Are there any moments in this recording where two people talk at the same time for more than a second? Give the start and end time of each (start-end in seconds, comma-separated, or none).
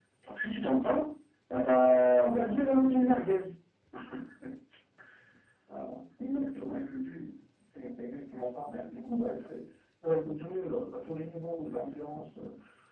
none